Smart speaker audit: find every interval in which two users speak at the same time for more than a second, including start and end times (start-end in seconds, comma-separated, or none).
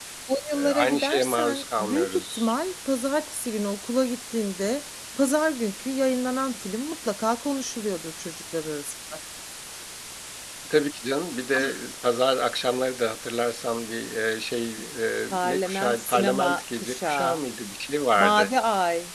0.5-2.5, 15.3-17.4